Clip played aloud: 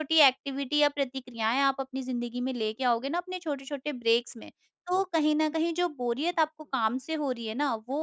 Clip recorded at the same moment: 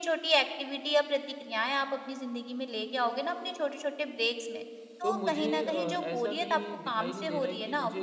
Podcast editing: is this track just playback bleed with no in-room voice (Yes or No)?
No